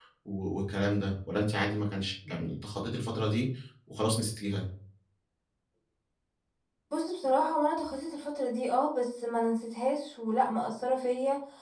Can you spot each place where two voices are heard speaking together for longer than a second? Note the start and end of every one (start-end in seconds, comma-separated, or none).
none